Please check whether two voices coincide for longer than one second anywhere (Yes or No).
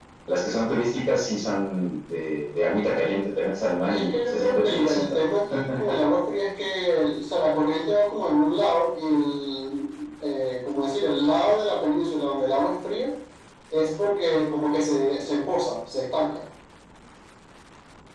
Yes